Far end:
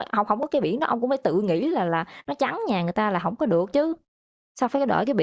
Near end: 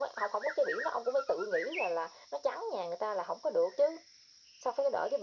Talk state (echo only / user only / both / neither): echo only